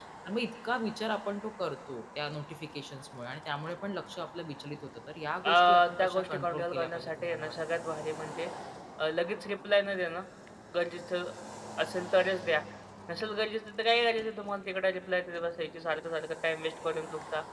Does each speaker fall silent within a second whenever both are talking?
No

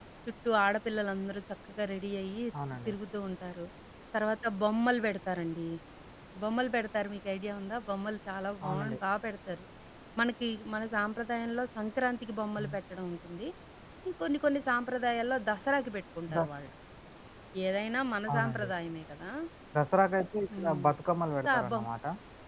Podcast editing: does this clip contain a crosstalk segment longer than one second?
No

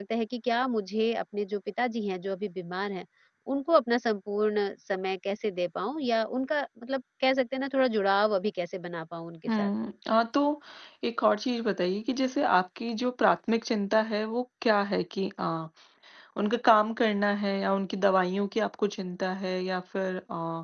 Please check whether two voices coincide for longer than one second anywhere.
No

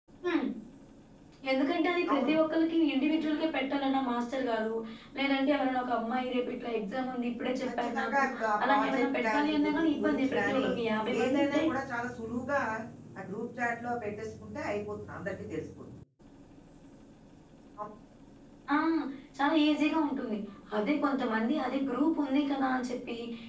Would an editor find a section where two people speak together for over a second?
Yes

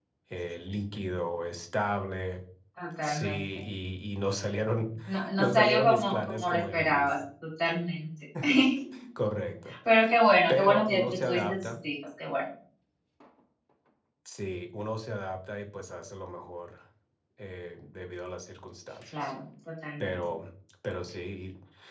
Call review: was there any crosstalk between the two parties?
Yes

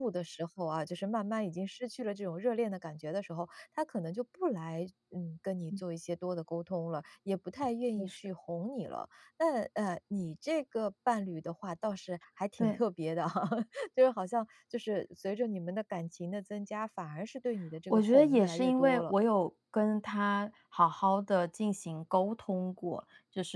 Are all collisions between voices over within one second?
No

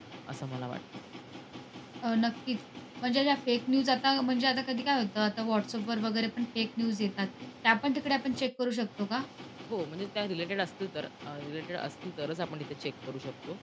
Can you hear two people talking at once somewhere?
No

